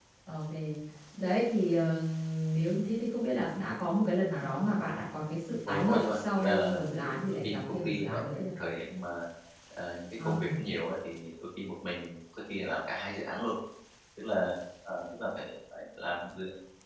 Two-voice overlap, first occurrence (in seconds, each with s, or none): 5.7 s